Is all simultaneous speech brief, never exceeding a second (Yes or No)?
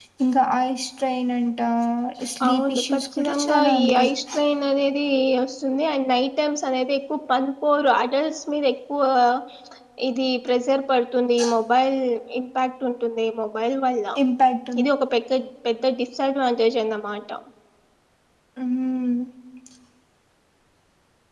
No